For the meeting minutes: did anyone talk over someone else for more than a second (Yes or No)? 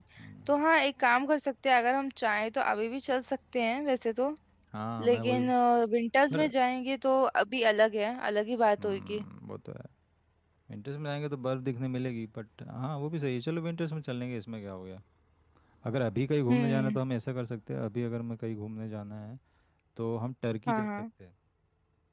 No